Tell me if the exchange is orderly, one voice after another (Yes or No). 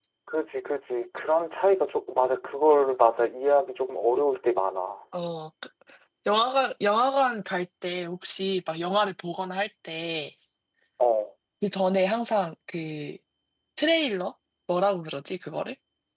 Yes